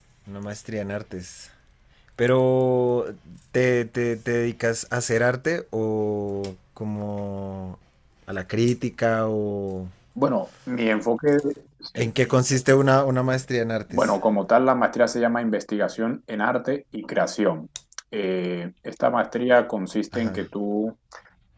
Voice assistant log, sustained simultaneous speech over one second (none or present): none